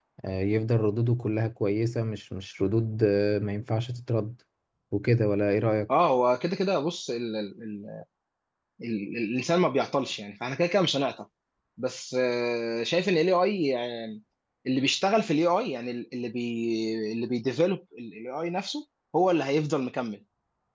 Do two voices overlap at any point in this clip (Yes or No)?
No